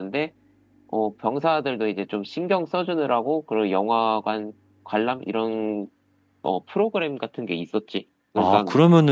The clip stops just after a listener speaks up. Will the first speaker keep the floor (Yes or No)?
No